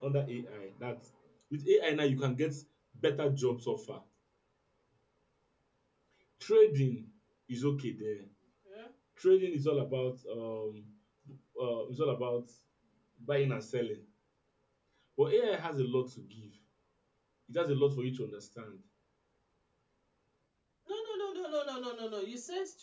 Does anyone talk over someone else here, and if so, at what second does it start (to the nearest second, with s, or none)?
none